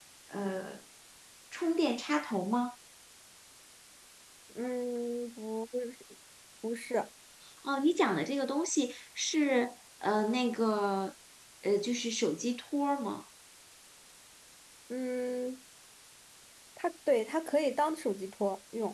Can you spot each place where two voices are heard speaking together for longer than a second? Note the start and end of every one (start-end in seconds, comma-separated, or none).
none